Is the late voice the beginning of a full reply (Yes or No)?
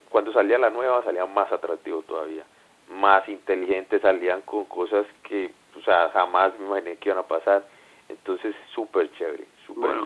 Yes